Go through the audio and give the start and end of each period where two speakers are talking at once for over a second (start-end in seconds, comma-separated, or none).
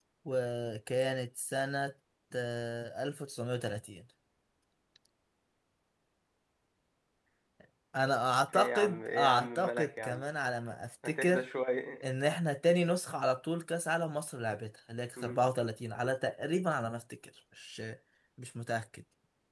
8.5-10.2